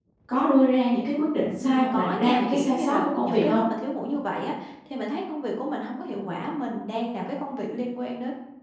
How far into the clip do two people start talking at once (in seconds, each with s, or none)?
1.6 s